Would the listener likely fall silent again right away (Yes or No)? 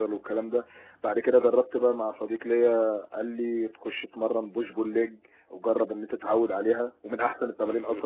No